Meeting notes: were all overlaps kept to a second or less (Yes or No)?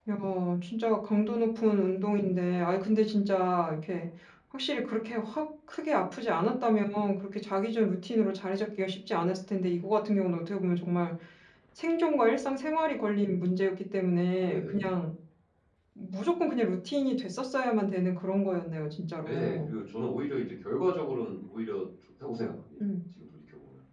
Yes